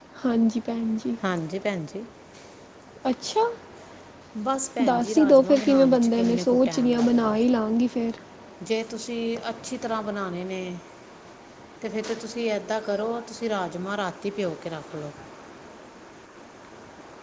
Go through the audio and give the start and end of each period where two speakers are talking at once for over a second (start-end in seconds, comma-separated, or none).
4.9-7.4